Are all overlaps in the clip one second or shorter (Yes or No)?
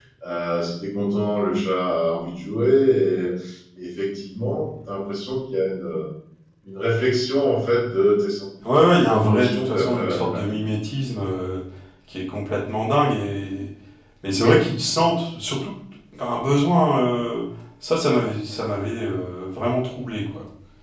No